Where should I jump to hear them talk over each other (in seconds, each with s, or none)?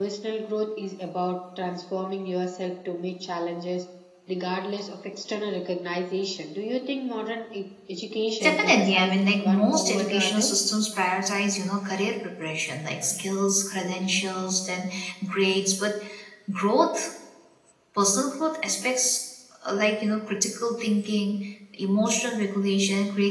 8.4 s